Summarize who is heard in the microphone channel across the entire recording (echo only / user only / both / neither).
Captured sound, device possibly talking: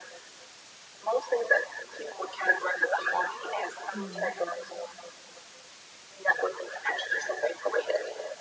both